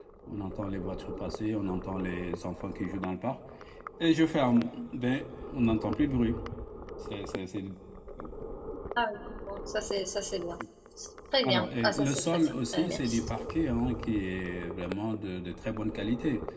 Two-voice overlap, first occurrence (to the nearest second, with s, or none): 11 s